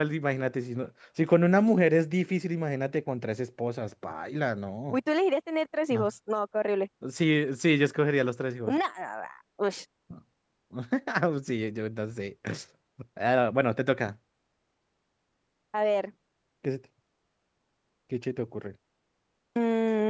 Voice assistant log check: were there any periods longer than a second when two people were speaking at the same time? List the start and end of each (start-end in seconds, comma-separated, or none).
none